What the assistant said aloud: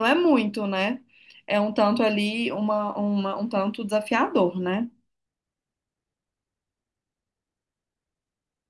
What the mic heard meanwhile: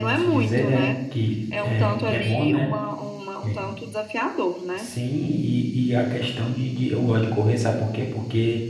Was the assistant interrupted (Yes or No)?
Yes